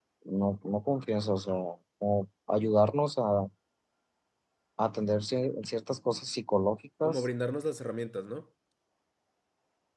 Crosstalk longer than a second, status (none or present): none